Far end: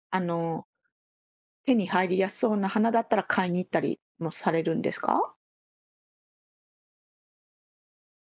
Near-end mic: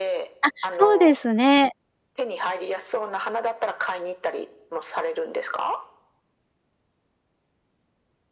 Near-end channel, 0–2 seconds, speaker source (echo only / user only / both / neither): both